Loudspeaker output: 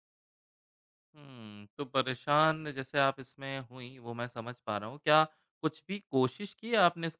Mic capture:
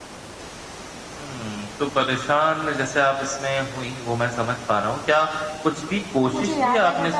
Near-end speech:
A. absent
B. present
B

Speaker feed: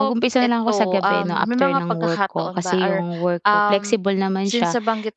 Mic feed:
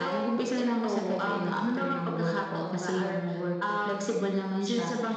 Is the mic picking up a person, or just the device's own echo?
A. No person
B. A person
A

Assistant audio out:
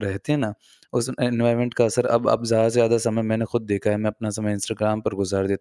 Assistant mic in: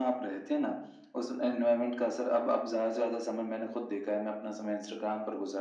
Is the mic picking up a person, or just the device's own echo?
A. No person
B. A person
A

